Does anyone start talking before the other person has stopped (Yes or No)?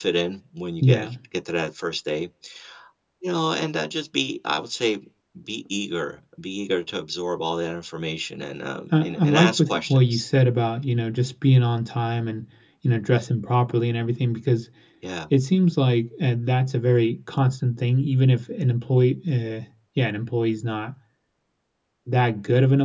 Yes